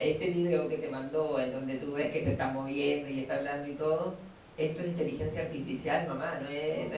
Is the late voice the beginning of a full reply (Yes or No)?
Yes